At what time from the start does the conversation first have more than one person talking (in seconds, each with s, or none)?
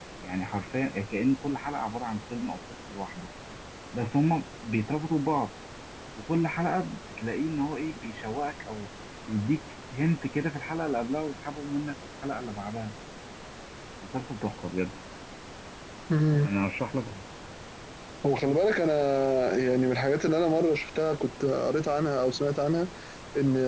none